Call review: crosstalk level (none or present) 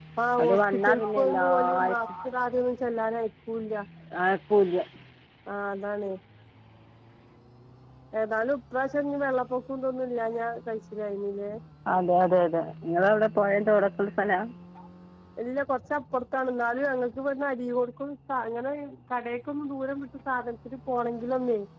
present